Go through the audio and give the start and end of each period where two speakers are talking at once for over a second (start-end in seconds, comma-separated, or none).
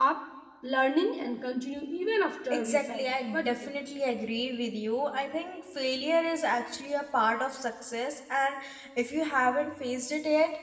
2.5-3.7